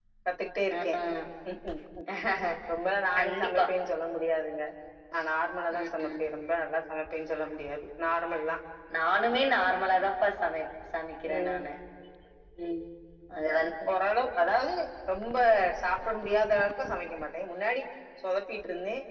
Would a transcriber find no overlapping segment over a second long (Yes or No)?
Yes